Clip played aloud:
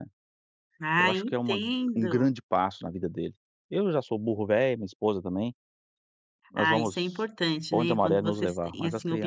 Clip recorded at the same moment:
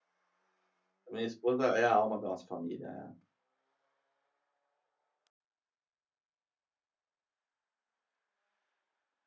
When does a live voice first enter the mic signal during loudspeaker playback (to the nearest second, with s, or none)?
1 s